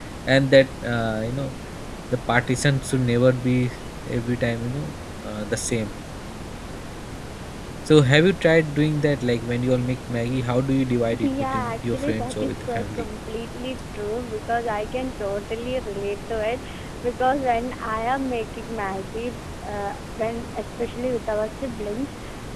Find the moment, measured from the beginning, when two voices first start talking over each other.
11.1 s

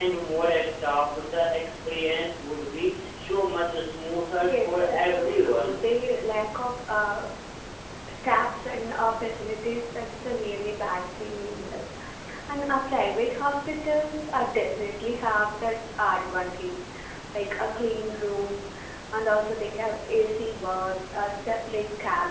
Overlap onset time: 4.4 s

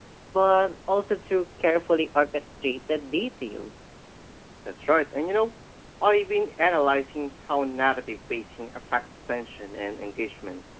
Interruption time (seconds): none

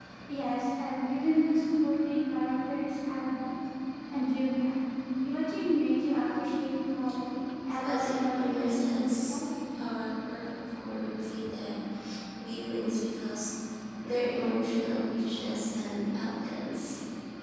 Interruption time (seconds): 7.7 s

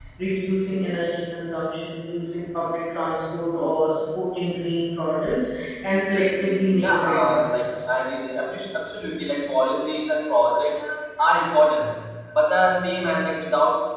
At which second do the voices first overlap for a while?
6.4 s

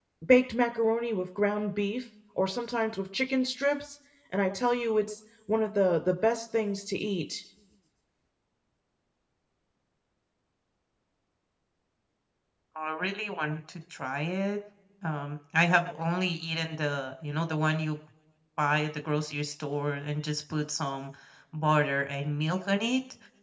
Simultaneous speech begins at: none

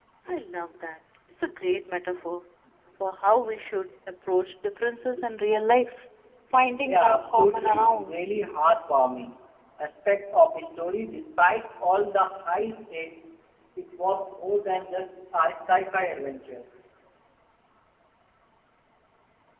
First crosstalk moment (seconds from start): 6.8 s

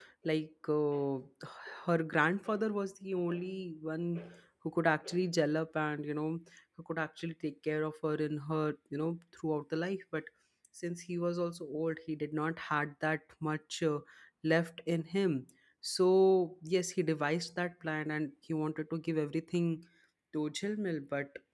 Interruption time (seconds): none

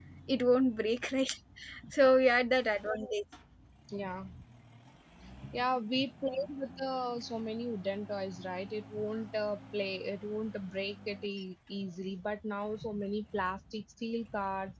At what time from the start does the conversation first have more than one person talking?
none

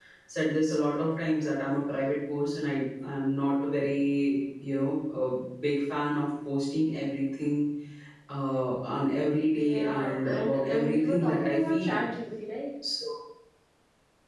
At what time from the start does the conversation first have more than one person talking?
9.6 s

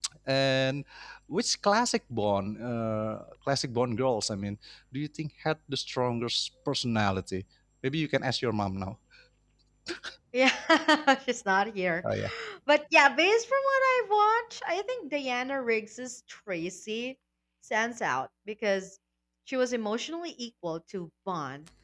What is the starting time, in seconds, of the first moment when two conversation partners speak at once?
none

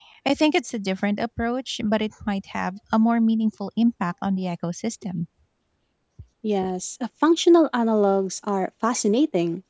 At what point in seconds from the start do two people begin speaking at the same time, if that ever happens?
none

